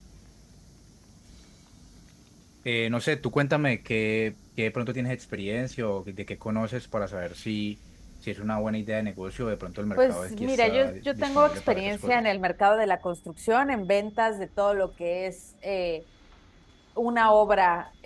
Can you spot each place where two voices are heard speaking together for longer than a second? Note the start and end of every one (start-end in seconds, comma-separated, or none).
10.0-12.2